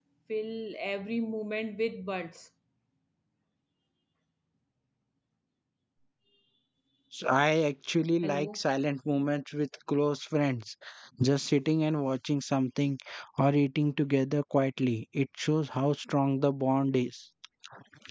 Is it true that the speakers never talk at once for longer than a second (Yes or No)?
Yes